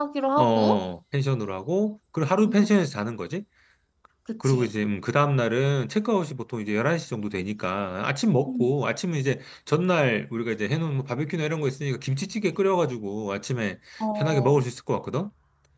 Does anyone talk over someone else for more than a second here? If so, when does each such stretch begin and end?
none

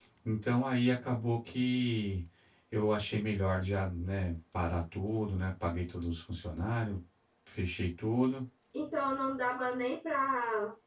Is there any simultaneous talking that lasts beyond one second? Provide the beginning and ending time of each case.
none

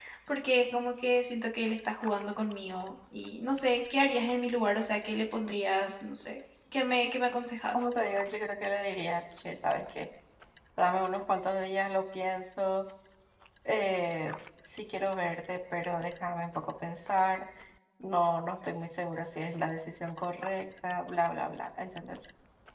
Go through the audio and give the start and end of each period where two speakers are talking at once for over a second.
none

